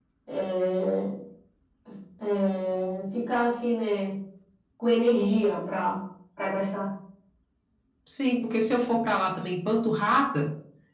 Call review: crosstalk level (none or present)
none